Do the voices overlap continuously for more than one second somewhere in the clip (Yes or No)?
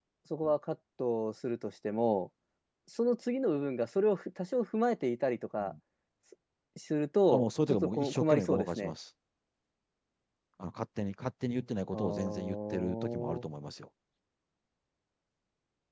Yes